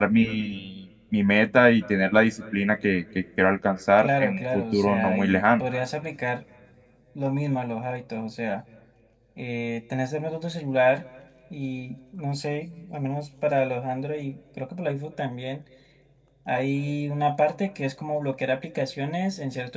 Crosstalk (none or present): present